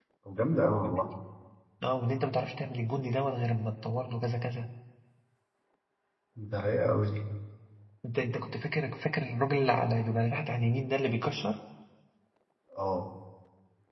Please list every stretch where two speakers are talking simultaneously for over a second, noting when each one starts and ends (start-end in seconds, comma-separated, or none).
none